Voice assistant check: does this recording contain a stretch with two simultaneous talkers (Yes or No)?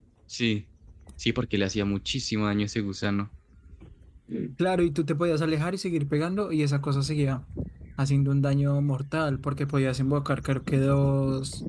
No